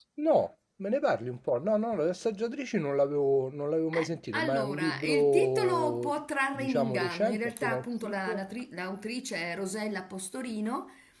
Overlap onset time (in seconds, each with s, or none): 3.9 s